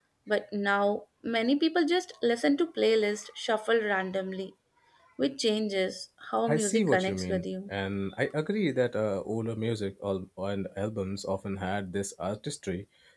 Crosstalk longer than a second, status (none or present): present